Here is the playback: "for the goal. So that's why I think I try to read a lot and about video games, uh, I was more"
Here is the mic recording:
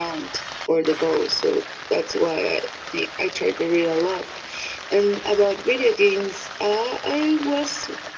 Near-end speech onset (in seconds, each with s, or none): none